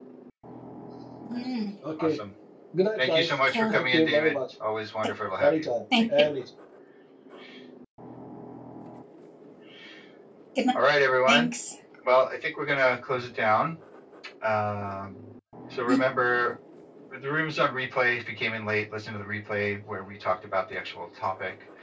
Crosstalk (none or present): present